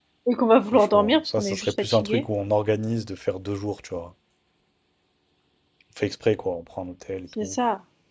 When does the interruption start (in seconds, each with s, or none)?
0.7 s